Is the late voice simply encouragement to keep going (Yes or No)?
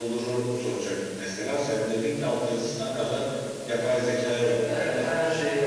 No